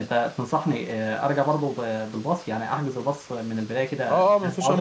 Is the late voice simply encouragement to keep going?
No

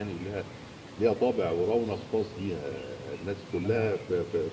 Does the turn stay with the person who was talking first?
Yes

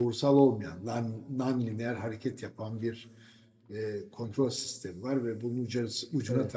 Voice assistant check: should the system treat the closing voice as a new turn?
No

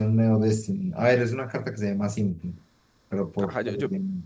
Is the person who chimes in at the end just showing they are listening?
No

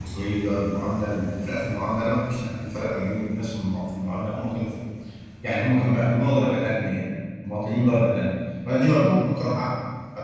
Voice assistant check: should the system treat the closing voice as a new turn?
No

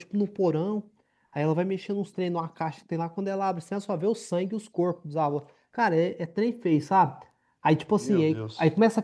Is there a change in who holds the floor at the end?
No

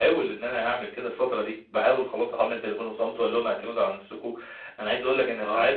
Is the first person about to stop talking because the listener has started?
No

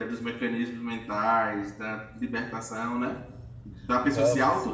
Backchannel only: Yes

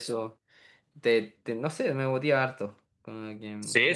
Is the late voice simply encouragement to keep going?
No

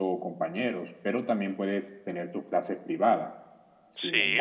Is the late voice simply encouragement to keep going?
Yes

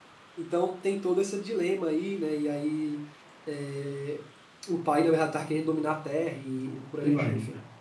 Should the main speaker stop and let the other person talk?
Yes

